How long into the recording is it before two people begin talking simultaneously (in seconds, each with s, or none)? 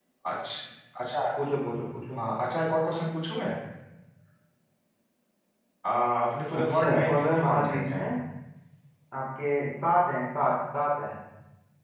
6.5 s